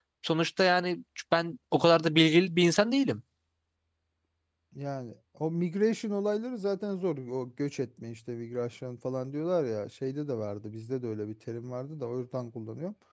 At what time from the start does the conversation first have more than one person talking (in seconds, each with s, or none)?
none